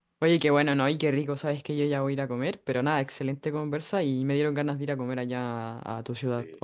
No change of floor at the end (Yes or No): Yes